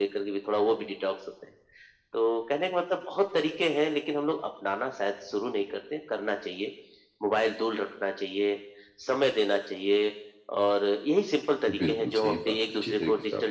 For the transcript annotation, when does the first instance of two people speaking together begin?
11.7 s

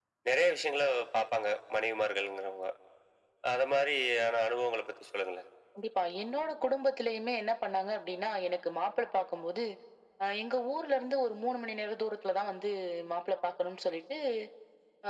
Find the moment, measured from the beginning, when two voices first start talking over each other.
none

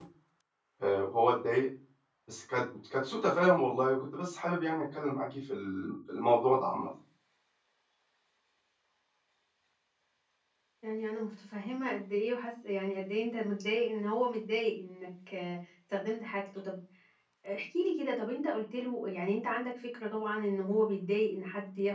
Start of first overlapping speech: none

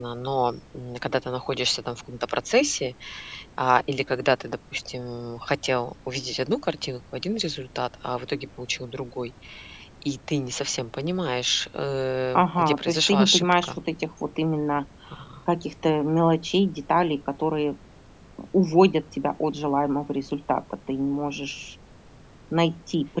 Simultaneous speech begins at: 12.4 s

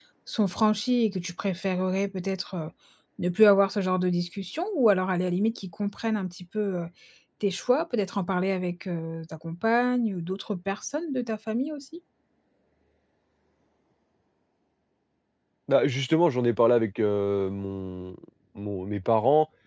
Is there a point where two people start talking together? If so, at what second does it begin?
none

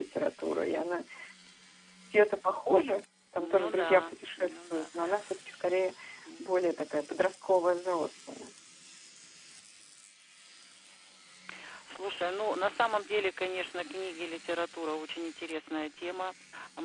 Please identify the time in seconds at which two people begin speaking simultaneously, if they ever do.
3.4 s

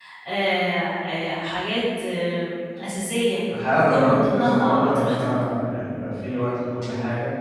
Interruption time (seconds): 3.8 s

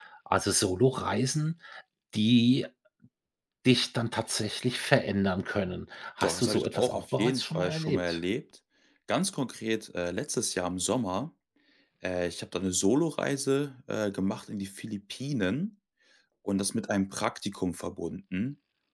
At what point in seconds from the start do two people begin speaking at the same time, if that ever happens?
6.2 s

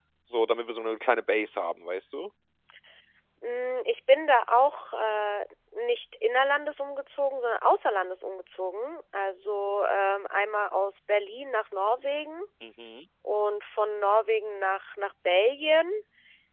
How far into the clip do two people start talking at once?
none

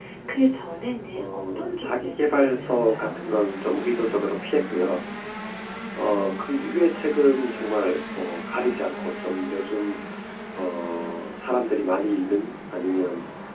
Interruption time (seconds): 1.1 s

